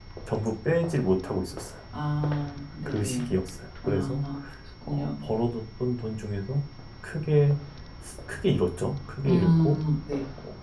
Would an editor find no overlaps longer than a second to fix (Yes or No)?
Yes